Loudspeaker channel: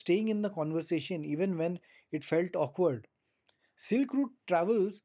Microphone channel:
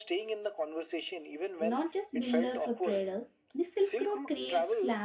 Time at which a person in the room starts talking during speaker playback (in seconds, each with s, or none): 1.6 s